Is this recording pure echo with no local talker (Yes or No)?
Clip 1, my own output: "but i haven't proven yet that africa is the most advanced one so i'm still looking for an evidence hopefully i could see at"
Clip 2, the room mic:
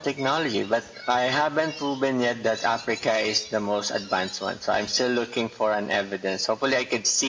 Yes